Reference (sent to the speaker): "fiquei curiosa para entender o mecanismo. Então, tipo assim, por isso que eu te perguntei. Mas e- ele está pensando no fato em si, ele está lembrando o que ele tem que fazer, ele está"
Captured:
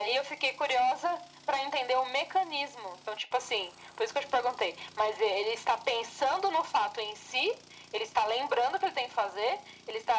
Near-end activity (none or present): none